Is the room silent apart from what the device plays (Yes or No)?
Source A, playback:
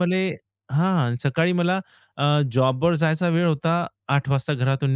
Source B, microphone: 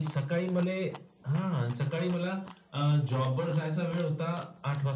Yes